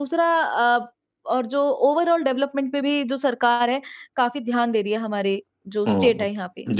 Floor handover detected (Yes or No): Yes